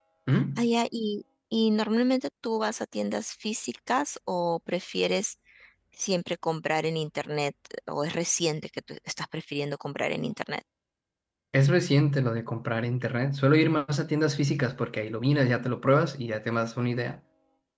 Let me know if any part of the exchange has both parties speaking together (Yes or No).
No